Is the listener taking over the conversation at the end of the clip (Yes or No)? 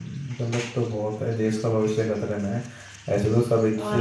No